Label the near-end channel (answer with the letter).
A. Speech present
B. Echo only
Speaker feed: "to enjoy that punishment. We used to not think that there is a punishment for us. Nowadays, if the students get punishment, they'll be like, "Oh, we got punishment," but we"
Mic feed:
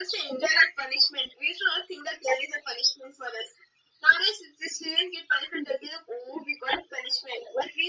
B